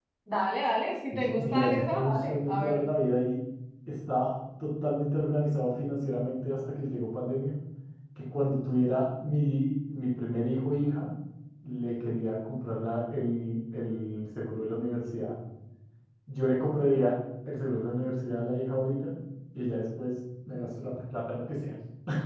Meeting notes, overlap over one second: present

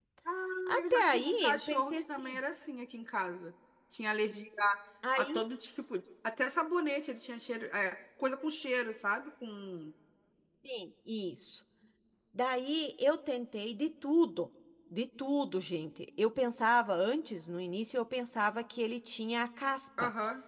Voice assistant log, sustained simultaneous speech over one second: present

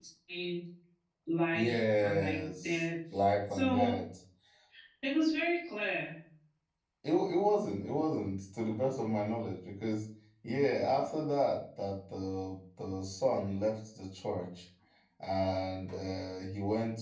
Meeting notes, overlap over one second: present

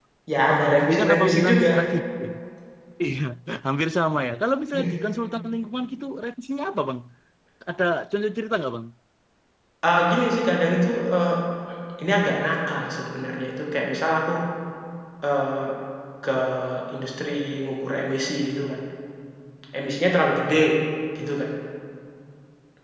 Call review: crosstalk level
present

